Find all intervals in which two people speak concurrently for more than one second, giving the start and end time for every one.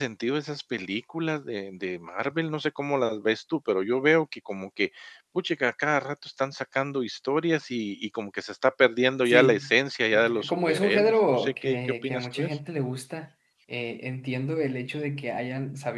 10.1-12.6

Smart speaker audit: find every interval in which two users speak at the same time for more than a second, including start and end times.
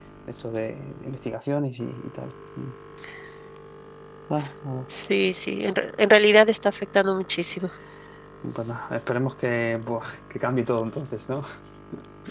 none

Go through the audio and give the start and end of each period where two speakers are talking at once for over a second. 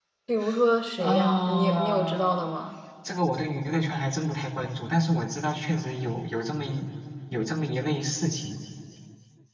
1.0-2.7

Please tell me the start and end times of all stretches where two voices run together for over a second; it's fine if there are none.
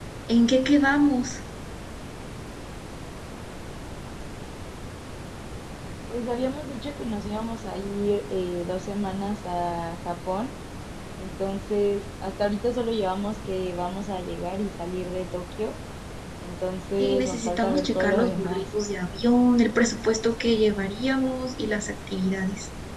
17.0-18.6

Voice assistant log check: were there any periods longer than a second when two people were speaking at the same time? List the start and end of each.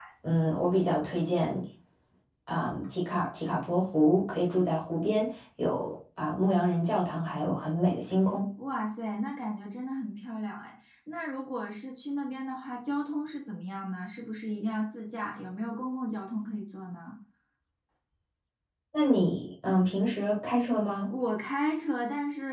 none

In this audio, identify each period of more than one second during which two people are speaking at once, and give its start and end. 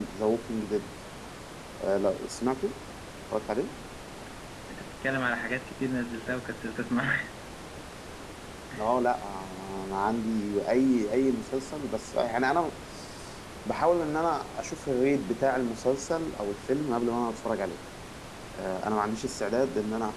none

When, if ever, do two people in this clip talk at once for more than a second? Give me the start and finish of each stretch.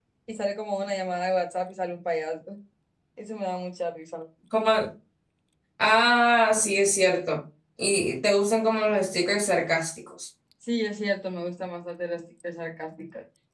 none

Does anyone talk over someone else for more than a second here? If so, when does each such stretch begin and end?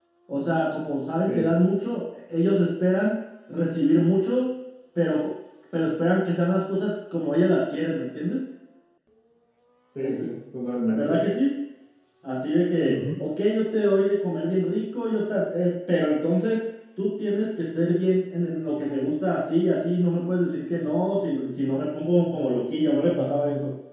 none

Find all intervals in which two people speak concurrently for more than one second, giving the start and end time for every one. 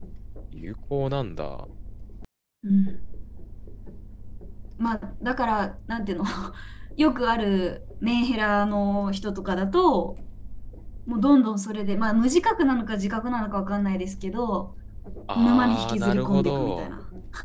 15.4-16.9

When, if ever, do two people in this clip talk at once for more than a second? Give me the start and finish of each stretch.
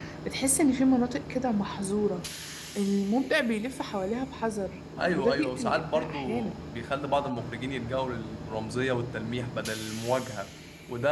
5.0-6.6

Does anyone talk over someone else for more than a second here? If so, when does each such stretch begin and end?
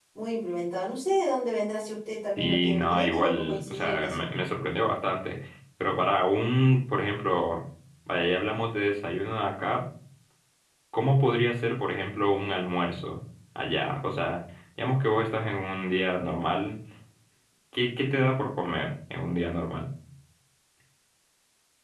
2.4-4.3

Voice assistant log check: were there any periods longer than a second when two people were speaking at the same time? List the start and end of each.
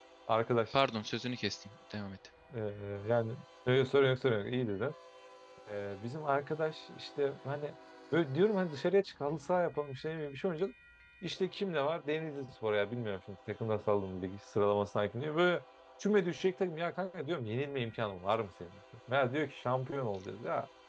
none

